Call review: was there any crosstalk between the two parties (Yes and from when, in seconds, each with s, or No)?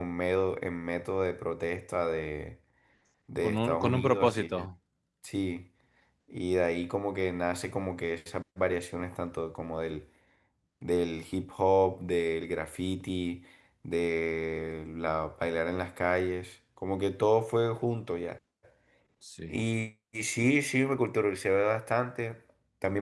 Yes, from 3.4 s